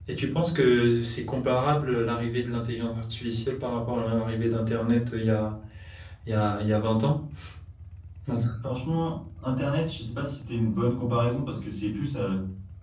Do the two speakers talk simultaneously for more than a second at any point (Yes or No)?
No